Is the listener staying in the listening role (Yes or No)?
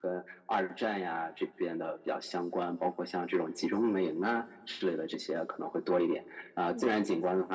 Yes